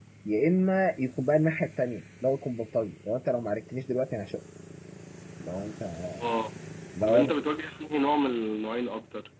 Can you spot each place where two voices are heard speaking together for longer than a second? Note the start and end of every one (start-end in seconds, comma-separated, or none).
none